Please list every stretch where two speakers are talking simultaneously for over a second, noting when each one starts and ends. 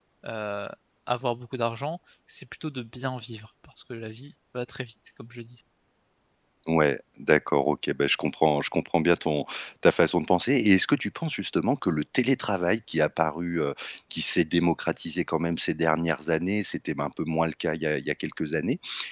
none

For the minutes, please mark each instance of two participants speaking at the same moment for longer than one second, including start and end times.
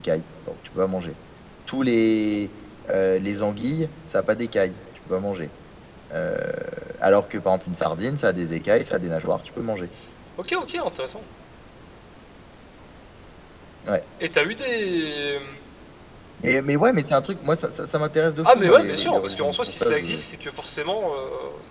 18.4-20.2

